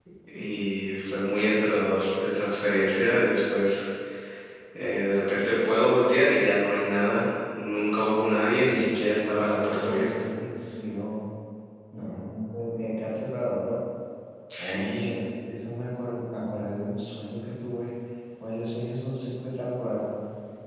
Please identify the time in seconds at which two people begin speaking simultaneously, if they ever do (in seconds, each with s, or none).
8.5 s